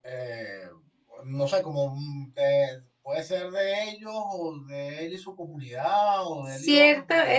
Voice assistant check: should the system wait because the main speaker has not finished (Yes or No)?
No